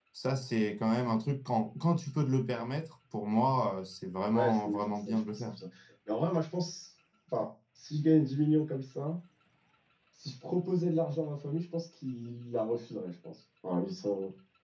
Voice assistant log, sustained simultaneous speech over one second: present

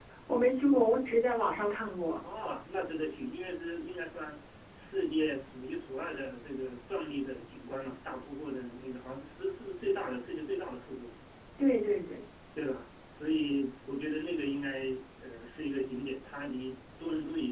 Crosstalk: none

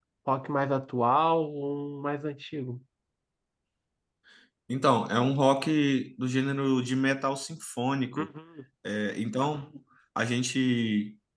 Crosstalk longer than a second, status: none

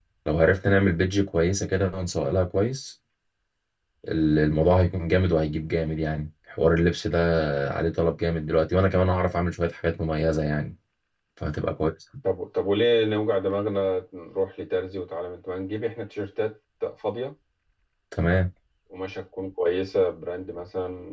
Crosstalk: none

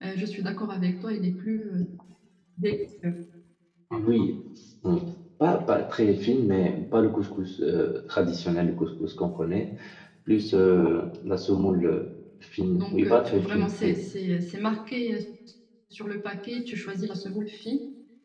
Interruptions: present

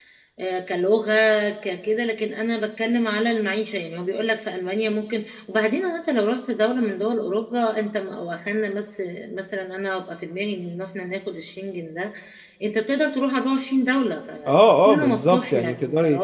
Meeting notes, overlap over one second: present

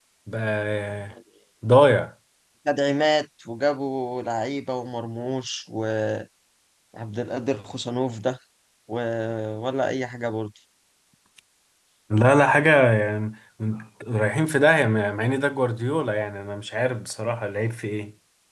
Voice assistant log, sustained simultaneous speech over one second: none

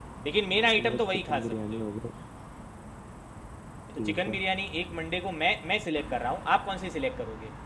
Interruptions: present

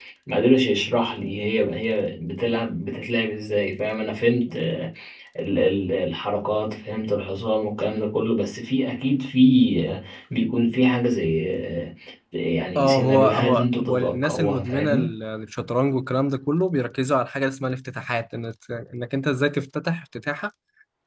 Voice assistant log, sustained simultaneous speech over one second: present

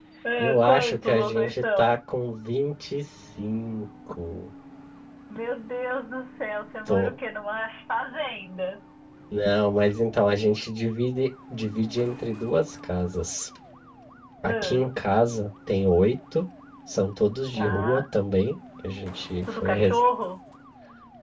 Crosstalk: present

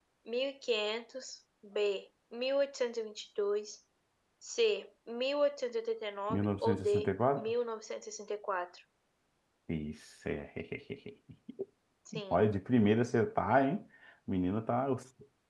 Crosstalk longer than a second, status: present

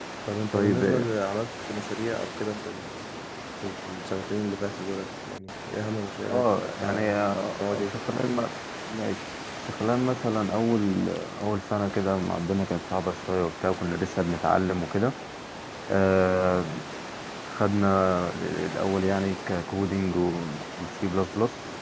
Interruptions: present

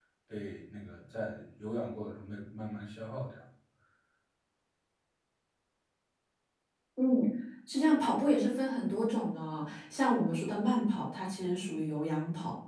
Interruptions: none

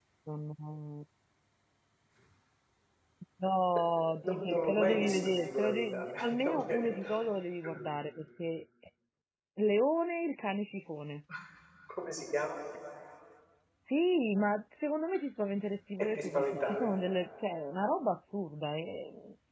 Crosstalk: present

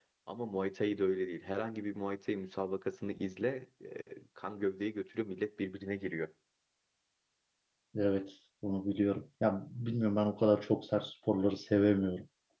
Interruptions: none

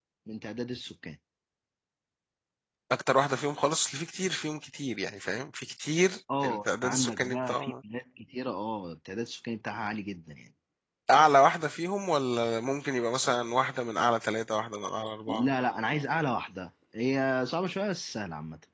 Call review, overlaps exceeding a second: present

